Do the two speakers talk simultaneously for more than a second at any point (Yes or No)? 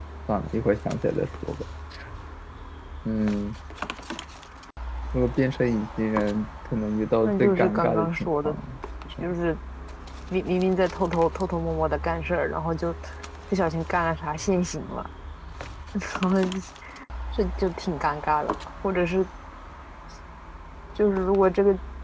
Yes